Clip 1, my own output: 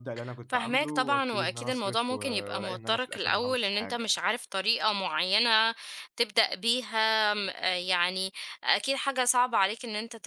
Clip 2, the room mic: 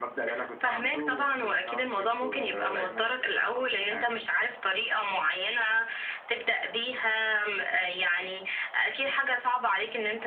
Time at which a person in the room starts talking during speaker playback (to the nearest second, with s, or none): none